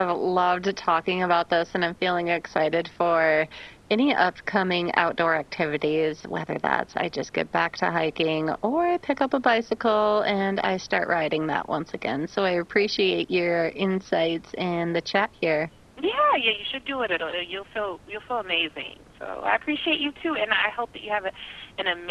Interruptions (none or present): none